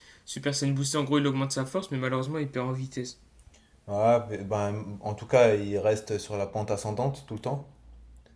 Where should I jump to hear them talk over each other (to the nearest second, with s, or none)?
none